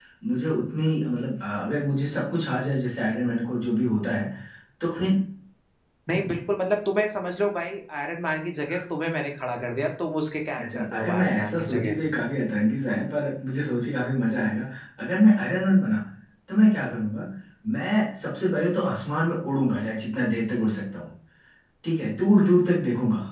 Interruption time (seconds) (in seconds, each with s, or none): 10.6 s